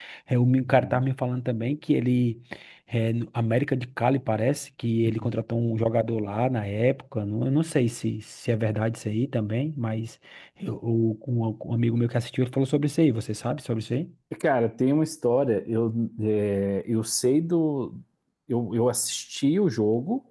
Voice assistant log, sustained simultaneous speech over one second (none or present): none